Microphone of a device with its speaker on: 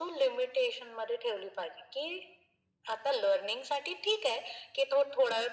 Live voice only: none

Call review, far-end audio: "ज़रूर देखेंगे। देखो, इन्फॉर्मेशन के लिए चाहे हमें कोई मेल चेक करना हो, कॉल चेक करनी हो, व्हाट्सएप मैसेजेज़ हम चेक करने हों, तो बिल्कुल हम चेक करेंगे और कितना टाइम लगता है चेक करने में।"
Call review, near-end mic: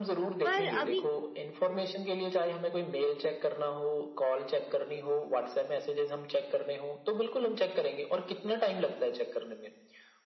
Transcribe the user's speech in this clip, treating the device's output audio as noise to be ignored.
पर अभी

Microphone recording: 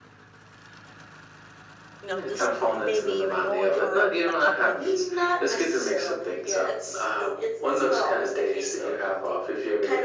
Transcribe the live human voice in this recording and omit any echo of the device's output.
you know, just may- maybe even going for a, a cup of

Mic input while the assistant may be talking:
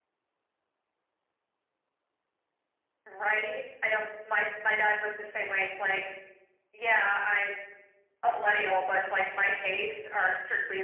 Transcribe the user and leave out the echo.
none

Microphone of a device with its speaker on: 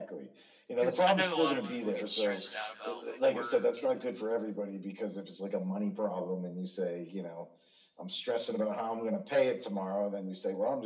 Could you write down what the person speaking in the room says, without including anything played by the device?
because I know a lot of people get stressed out about like work and

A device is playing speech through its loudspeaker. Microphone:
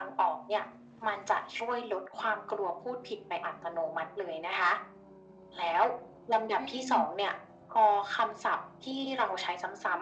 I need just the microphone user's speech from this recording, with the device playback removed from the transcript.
อืม

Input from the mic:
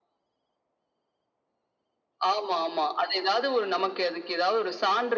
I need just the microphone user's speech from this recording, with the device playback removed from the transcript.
none

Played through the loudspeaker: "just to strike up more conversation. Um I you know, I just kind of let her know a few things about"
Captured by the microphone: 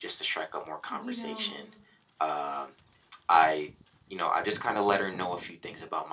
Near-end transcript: You know,

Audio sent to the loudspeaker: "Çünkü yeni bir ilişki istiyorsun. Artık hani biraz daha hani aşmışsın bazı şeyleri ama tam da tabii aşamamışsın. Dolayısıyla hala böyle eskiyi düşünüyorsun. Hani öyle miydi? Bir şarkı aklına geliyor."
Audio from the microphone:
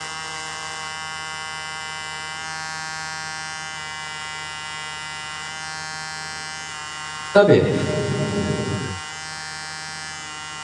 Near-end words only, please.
Tabii.

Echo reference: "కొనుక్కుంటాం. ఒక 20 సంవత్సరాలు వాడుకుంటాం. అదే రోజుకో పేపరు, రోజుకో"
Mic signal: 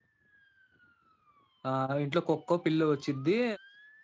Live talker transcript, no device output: ఆహ్, ఇంట్లో కుక్కో, పిల్లో వచ్చిద్ది.

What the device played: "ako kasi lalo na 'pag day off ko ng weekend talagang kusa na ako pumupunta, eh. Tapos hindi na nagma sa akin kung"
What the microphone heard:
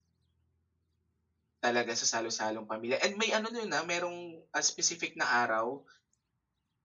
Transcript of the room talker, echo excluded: talaga sa salo-salong pamilya. And may ano nun, na merong, ah, specific na araw

